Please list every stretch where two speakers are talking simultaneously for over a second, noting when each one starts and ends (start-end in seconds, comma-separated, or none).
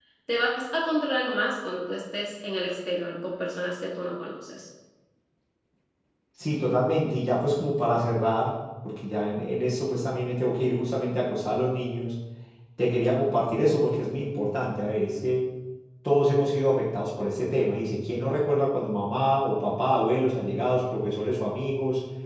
none